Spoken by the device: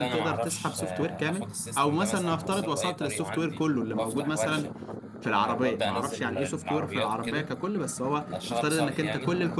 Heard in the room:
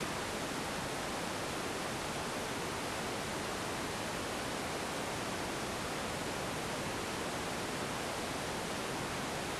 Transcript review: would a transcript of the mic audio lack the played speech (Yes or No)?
Yes